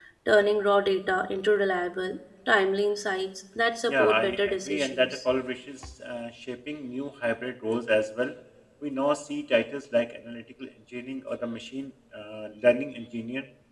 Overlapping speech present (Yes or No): Yes